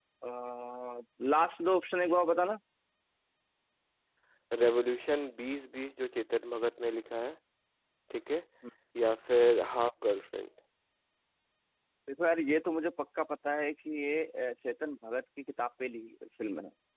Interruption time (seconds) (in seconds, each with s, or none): none